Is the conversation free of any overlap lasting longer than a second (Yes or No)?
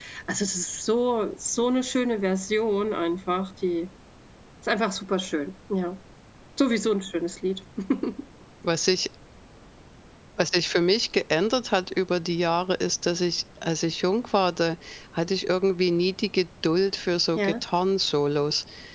Yes